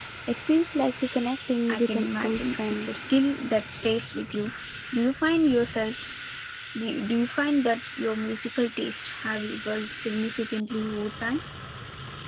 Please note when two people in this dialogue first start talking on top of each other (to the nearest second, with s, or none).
2 s